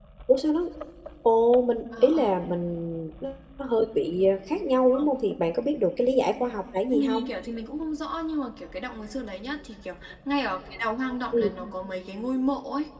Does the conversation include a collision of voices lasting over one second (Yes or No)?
No